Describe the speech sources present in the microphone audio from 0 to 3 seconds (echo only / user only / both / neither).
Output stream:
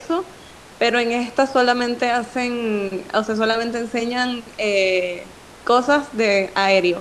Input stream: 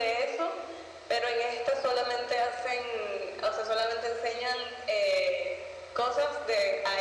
echo only